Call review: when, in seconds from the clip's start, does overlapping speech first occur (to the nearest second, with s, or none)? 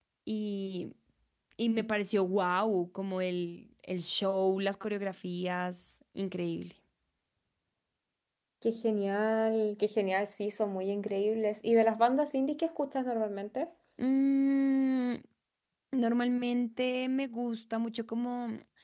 none